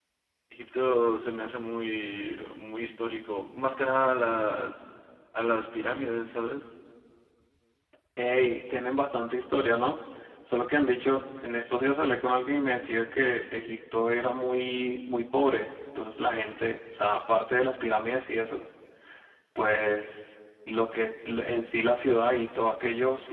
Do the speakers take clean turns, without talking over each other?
Yes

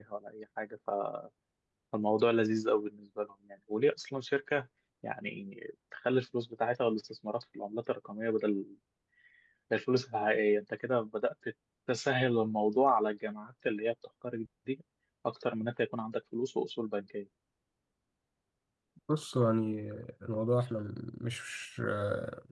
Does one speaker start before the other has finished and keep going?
No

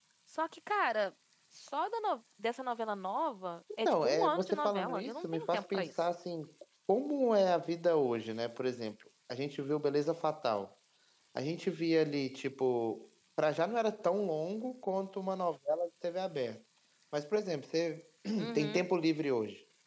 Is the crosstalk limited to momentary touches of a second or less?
No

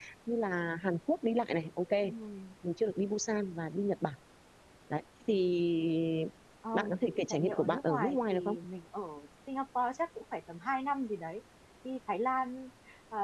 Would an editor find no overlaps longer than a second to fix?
No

